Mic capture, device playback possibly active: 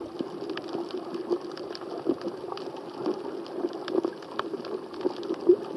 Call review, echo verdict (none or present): none